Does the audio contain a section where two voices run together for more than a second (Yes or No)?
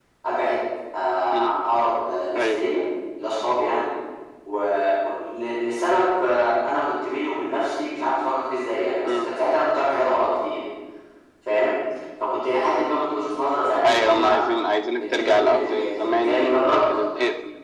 Yes